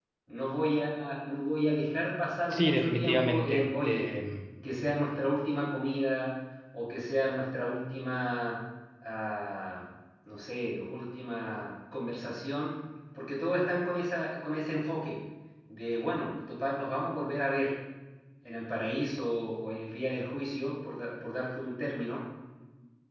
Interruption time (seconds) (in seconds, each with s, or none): 2.5 s